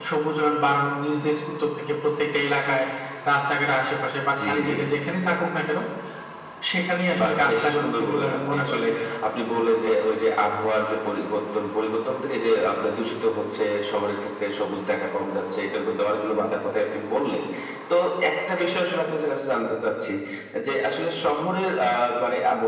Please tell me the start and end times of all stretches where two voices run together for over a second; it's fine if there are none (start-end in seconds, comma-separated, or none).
7.2-8.8